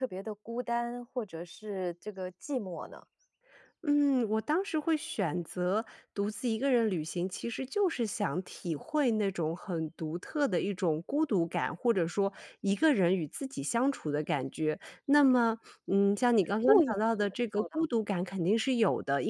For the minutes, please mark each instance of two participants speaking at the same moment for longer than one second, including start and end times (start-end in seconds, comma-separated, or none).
16.6-17.9